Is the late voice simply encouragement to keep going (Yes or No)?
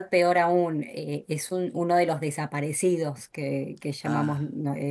Yes